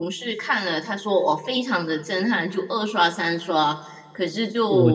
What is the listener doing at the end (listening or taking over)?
taking over